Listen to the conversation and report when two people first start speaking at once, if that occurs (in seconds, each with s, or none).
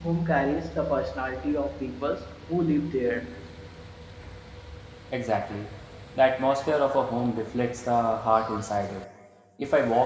none